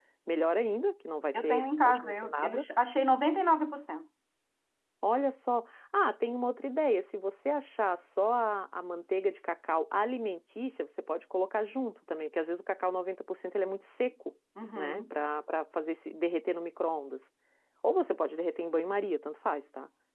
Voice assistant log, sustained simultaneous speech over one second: present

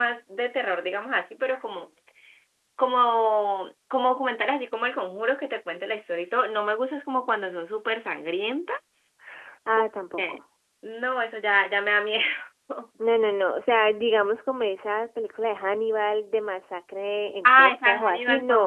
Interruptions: present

